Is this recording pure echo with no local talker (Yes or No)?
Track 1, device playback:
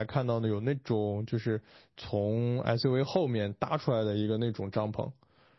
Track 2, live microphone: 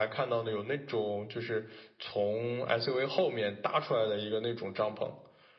Yes